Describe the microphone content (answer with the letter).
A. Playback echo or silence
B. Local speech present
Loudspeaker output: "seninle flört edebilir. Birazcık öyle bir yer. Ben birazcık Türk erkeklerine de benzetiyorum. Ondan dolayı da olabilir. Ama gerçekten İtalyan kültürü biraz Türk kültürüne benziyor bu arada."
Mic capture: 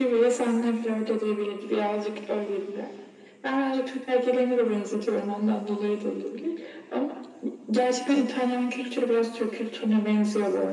A